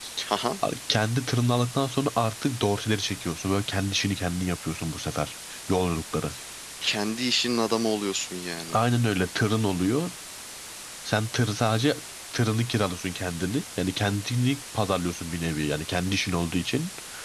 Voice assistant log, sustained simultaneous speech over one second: none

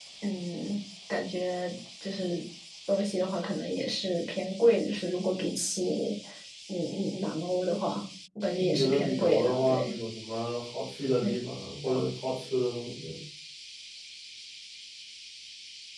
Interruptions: present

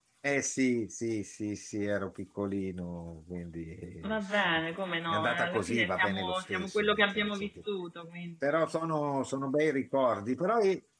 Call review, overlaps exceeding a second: present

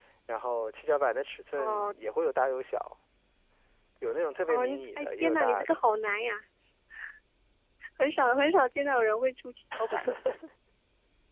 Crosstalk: present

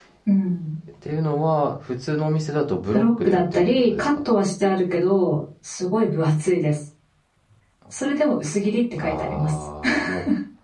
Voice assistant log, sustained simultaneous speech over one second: present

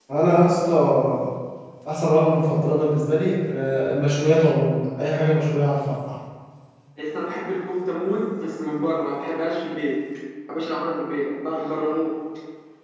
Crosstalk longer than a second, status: none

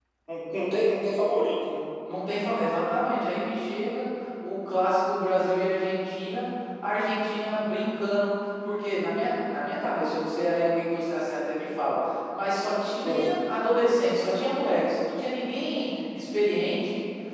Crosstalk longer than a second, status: none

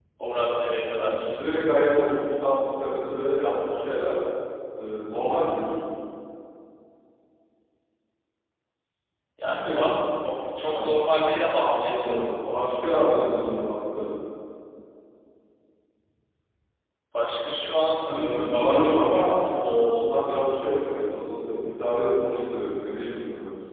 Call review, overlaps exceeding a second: present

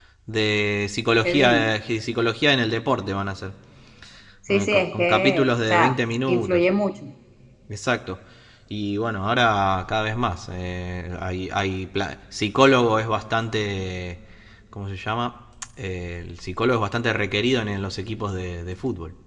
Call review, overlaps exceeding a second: present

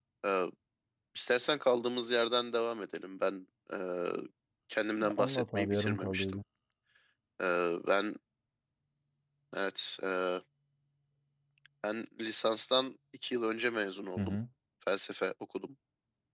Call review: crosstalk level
present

